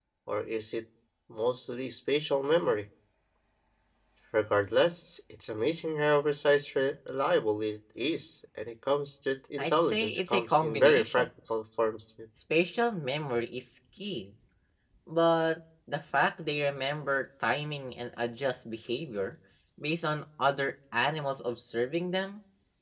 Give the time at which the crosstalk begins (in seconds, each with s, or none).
9.6 s